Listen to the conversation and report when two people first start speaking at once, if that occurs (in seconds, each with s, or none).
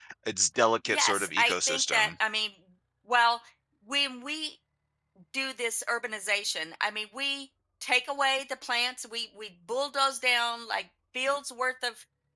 0.9 s